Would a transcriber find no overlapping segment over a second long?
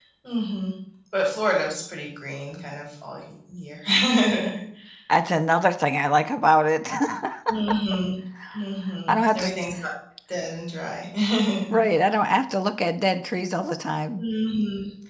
Yes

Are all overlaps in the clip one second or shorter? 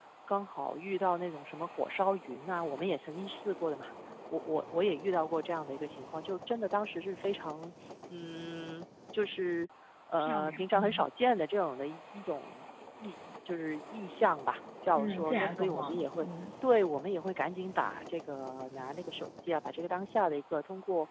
No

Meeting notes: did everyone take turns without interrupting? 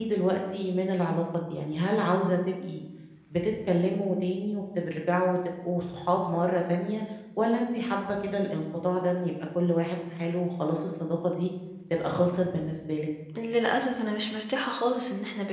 Yes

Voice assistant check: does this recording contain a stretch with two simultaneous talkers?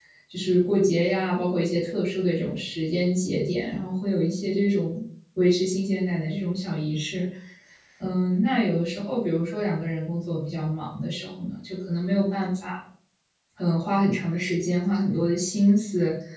No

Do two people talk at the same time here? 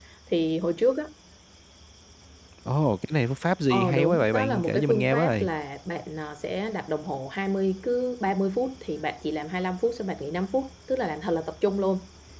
Yes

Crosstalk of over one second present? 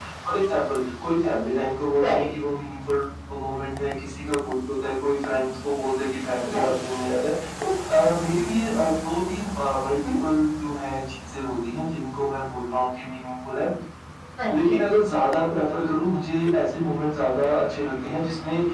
No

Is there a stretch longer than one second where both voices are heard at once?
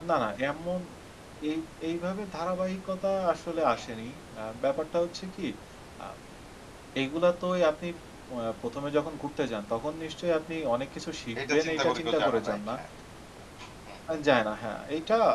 Yes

